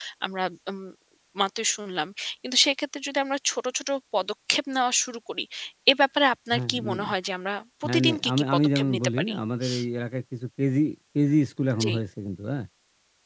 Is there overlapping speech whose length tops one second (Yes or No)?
Yes